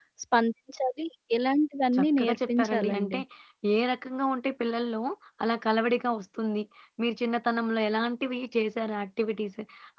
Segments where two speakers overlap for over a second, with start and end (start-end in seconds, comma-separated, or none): 1.9-3.2